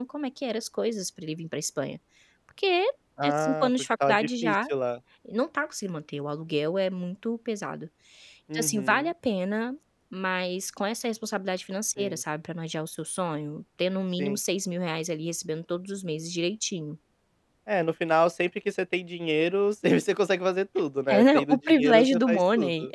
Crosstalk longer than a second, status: present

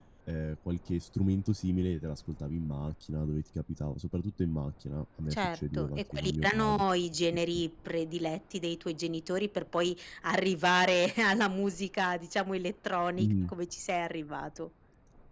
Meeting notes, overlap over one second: present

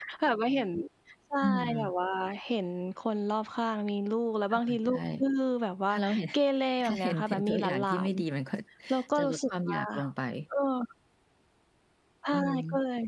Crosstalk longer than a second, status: present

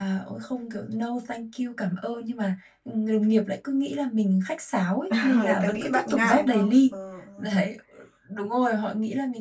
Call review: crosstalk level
present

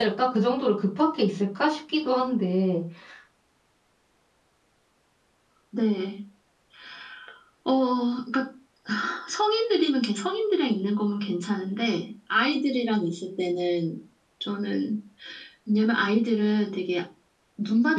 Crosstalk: none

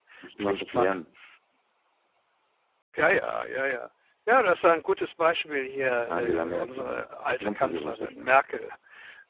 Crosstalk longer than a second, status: present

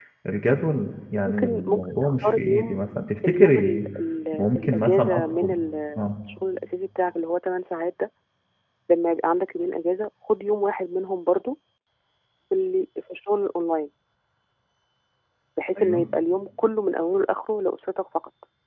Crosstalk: present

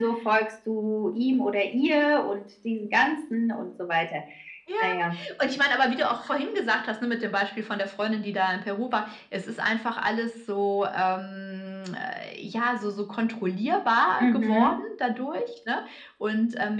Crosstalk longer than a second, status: none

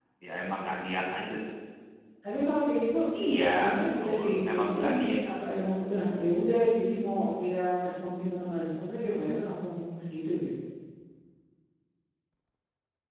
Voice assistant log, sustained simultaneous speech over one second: present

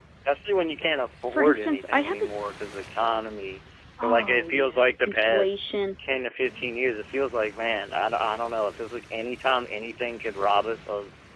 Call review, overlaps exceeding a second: present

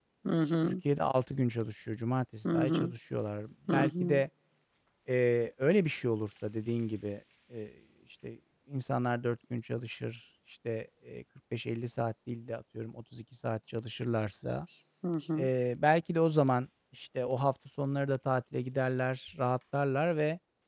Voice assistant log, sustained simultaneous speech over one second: none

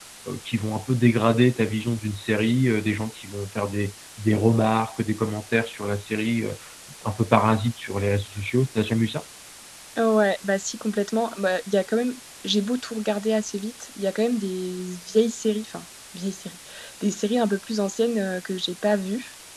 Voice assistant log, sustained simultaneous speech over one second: none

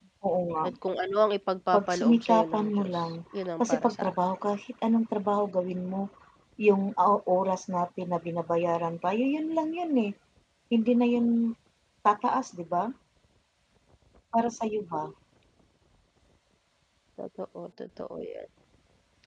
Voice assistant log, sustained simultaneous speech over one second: present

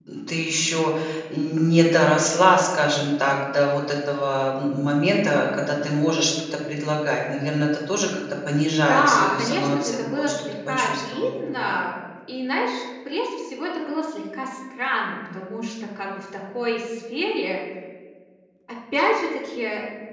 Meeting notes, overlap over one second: present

